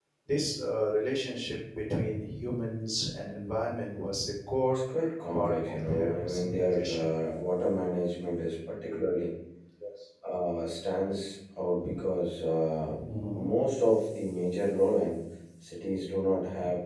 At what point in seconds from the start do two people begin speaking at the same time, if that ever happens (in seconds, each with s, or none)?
5.3 s